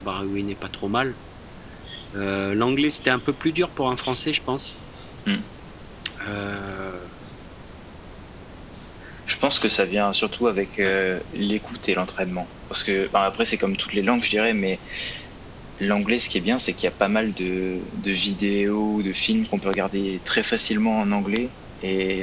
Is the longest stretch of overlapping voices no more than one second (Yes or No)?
Yes